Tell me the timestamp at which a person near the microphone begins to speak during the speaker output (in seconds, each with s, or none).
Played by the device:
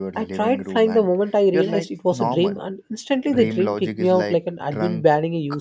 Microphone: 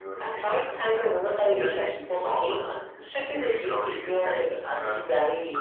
none